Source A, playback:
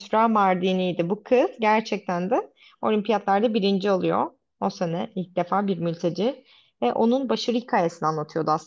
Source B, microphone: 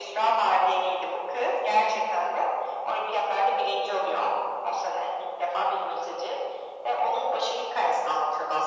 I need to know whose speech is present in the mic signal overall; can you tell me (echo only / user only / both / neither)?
echo only